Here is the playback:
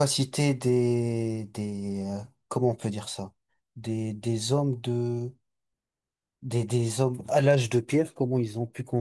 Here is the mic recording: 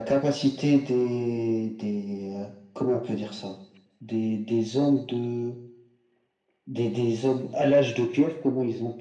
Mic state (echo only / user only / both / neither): echo only